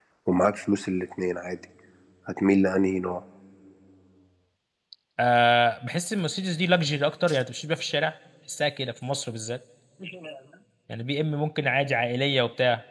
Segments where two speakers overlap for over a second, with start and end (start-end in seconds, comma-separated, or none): none